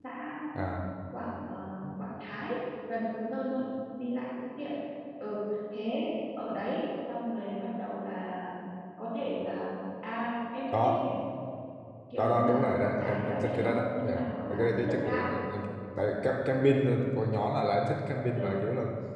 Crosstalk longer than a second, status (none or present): present